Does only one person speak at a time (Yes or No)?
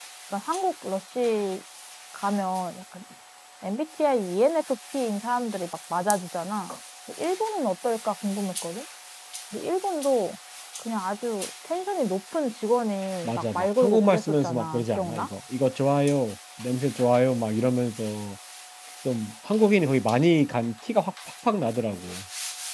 No